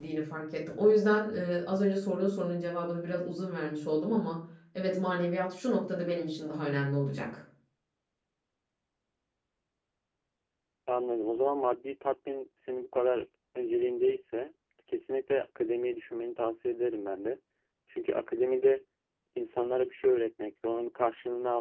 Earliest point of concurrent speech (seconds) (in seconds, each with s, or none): none